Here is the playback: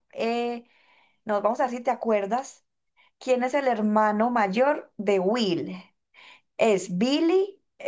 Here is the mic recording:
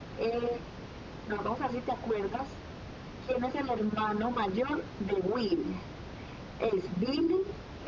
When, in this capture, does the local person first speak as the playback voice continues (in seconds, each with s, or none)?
none